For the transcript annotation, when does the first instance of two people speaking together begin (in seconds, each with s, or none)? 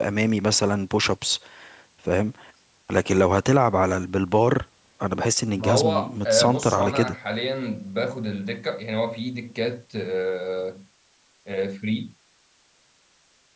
5.6 s